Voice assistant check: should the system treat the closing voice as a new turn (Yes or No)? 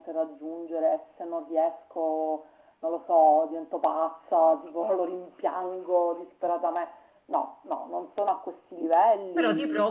Yes